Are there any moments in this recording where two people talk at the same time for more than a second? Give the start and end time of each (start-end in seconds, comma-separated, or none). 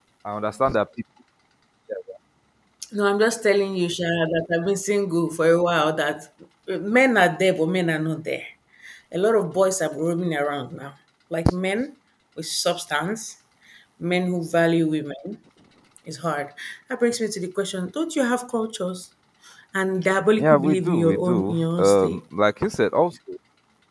20.4-22.2